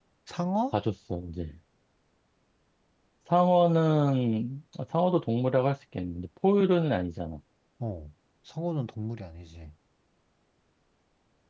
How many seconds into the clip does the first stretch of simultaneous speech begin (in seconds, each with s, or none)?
none